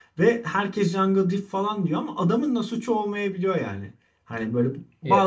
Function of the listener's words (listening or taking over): listening